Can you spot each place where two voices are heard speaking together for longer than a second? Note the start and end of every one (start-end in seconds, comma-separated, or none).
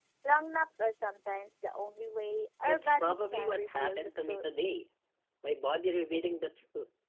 2.6-4.4